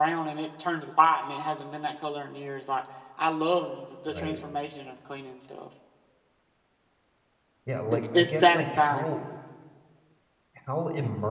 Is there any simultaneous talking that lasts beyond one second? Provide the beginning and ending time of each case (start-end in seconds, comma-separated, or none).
7.9-9.1